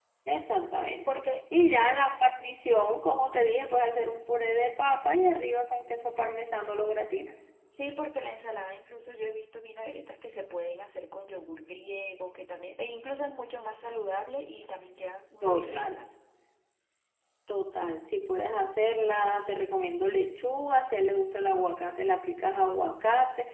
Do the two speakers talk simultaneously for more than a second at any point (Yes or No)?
No